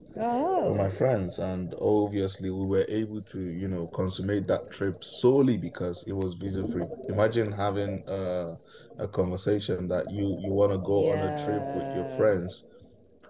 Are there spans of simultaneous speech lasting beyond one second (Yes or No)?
Yes